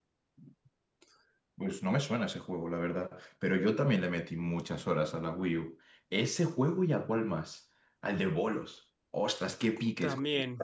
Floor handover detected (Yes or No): No